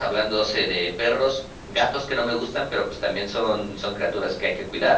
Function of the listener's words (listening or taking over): listening